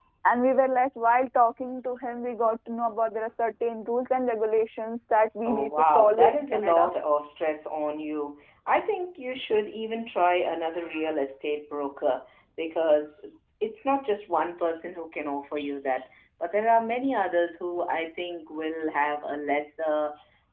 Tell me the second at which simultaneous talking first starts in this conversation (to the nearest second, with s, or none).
5 s